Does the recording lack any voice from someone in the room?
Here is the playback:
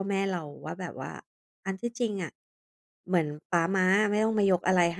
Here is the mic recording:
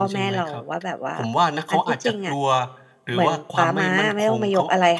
No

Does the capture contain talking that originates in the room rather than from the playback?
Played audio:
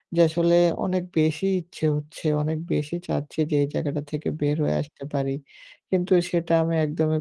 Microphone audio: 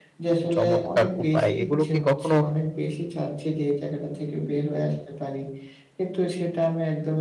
Yes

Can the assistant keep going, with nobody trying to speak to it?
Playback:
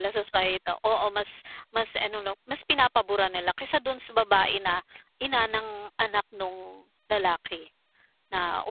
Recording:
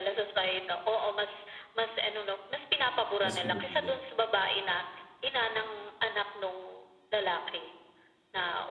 No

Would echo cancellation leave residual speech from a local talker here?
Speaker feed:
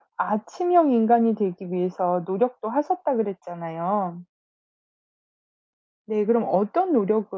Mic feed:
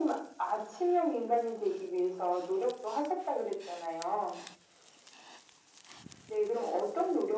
No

